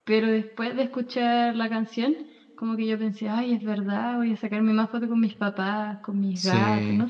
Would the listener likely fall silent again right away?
No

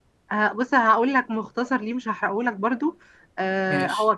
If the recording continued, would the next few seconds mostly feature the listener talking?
No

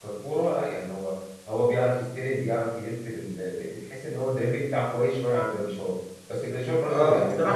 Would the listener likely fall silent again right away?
No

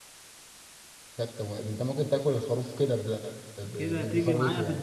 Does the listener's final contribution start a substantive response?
Yes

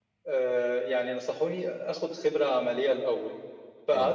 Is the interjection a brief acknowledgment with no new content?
Yes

